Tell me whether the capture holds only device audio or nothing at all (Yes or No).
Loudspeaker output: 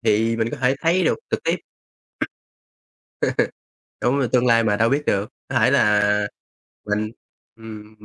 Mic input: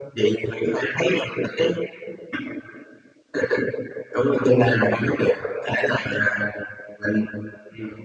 Yes